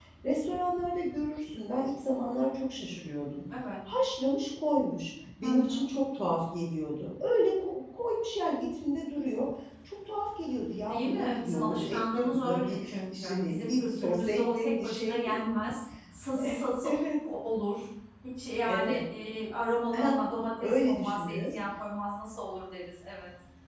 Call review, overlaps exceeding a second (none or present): present